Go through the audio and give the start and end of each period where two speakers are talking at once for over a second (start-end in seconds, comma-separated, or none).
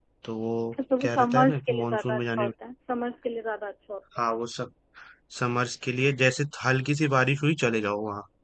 1.0-2.5